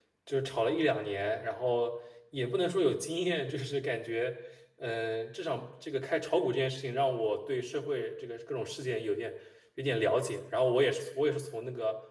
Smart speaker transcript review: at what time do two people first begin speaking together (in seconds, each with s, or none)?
none